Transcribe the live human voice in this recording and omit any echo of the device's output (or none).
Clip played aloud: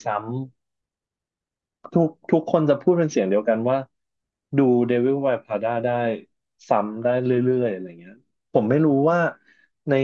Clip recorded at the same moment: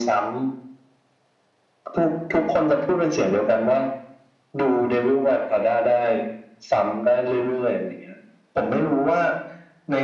none